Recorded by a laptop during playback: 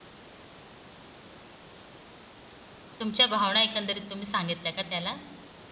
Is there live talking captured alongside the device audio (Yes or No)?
Yes